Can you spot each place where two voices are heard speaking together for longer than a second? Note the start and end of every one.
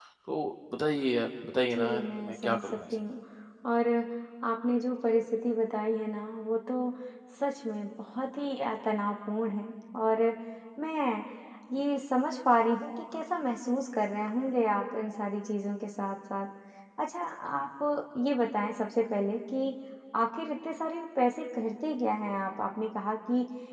1.7-2.9

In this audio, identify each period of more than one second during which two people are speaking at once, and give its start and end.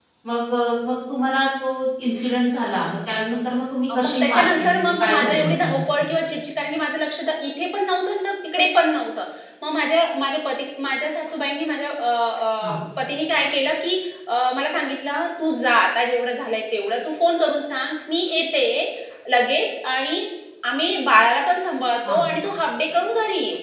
3.9-5.8

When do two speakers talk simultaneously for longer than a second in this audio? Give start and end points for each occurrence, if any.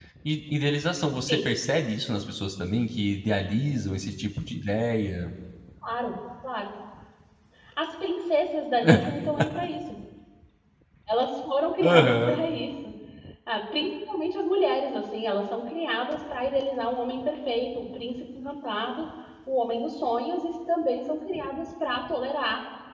none

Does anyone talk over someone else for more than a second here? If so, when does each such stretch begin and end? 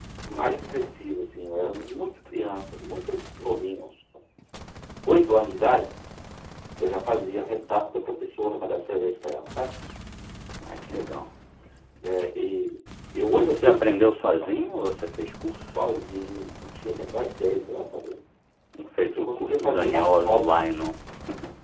19.1-20.4

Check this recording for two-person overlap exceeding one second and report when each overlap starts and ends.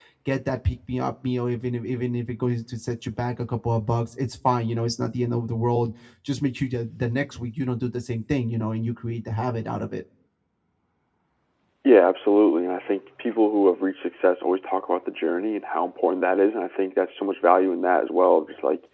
none

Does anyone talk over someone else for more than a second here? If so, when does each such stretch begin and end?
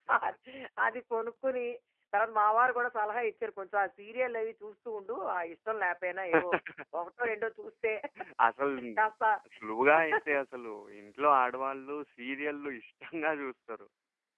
none

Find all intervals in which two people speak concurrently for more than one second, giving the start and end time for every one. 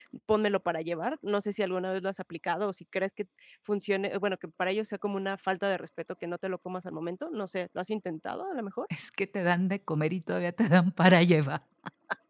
none

